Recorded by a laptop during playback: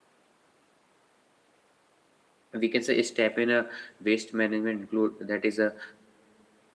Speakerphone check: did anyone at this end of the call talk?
Yes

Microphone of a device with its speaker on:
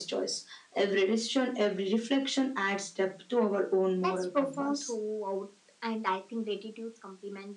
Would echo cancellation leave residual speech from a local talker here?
No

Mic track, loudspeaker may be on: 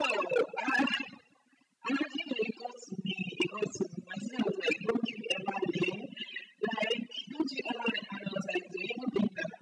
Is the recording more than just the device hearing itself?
No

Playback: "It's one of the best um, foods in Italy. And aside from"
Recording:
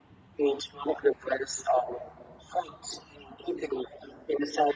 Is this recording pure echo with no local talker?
Yes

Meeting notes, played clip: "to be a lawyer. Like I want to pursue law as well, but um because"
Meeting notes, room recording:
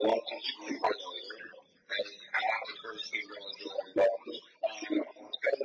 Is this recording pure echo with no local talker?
Yes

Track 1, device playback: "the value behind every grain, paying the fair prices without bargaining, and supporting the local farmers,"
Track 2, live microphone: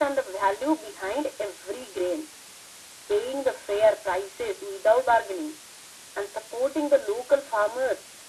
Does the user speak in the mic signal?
No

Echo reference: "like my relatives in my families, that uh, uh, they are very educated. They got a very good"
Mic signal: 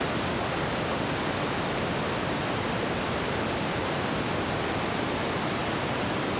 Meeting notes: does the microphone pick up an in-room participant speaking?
No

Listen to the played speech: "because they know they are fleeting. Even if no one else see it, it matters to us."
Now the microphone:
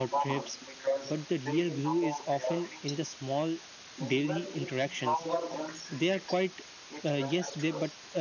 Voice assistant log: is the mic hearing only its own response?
No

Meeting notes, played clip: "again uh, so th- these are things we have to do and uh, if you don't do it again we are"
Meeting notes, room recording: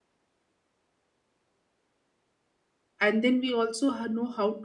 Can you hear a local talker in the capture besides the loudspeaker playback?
Yes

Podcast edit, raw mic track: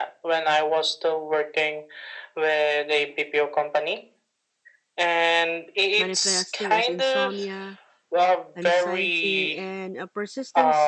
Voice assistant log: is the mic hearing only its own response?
No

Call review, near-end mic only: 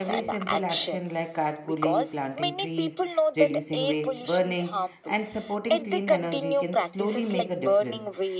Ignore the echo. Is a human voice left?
Yes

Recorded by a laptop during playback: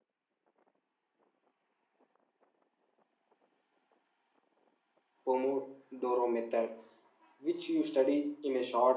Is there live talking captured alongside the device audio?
Yes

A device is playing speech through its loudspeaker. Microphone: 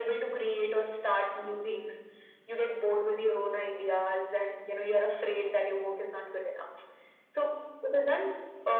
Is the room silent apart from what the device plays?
Yes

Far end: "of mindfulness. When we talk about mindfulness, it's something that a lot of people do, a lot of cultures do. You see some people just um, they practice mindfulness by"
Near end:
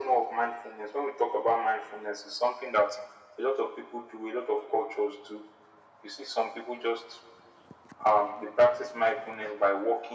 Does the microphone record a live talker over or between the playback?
No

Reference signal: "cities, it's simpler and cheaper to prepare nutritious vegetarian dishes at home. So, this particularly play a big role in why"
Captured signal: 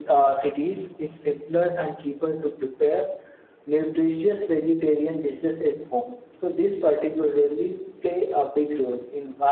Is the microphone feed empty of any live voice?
Yes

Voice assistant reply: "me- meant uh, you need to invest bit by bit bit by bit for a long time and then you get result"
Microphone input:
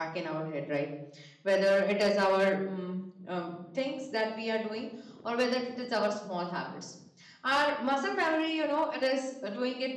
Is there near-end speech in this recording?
Yes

